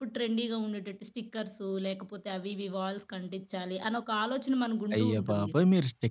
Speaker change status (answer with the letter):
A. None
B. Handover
B